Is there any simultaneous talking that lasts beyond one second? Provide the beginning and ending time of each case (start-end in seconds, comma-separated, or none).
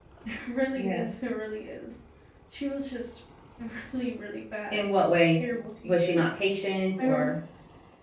none